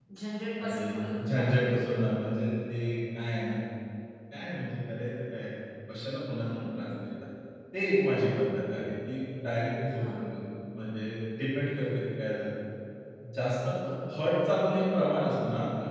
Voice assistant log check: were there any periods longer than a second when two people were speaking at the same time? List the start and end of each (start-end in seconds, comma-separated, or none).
0.6-2.0